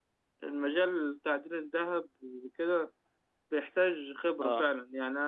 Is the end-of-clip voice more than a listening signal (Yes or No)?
No